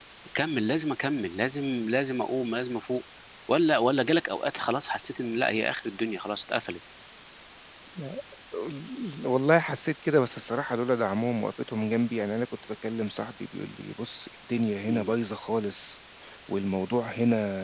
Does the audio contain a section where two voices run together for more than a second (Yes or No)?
No